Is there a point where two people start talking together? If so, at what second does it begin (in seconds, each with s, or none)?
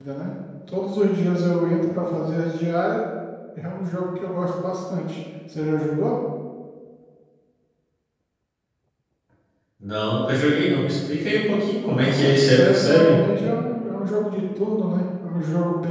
12.0 s